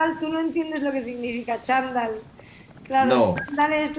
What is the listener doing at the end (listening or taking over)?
listening